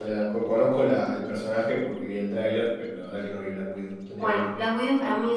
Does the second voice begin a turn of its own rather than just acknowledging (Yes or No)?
Yes